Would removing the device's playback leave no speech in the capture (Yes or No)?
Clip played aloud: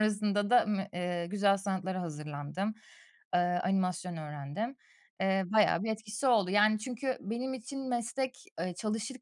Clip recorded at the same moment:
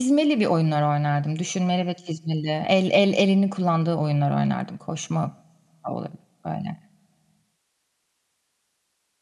No